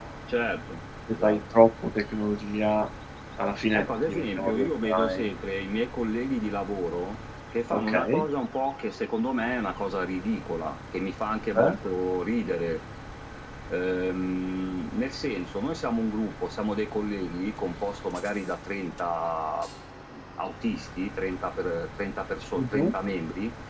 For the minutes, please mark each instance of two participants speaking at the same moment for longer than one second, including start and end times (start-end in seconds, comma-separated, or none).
3.7-5.3